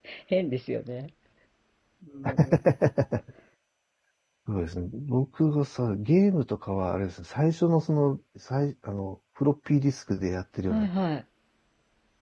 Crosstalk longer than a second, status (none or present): none